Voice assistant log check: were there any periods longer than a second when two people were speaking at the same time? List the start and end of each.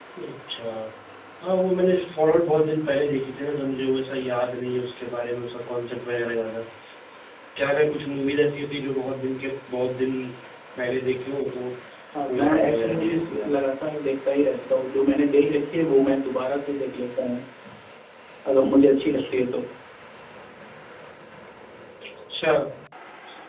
12.3-13.6

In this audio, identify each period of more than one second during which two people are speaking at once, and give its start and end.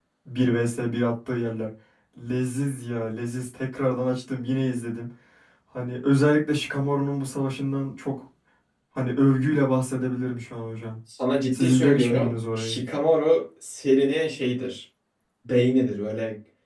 11.5-12.8

